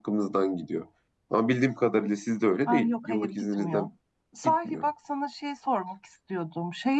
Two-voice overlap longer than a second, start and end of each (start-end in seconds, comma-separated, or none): 2.7-3.9